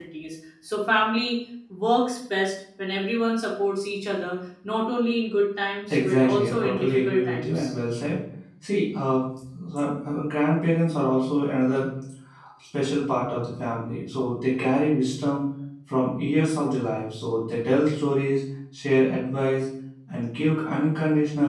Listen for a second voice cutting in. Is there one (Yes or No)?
Yes